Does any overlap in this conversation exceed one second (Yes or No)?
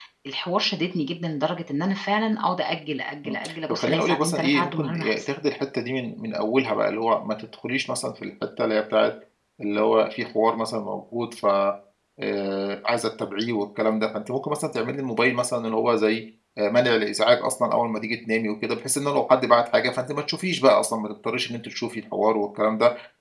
Yes